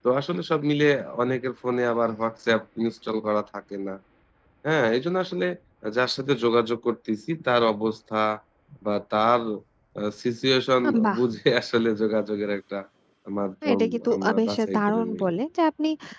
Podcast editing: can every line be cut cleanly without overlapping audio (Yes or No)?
No